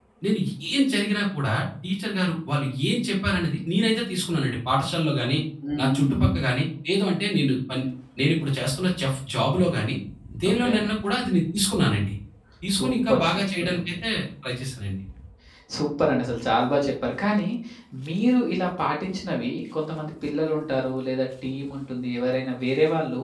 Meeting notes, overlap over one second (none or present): present